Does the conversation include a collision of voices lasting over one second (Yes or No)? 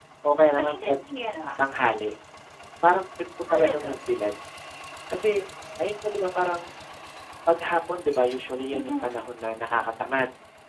No